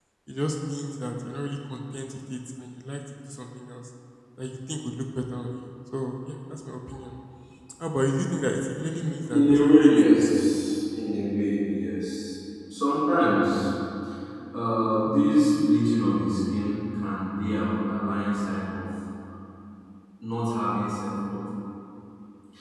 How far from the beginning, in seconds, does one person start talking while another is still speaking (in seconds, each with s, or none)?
9.3 s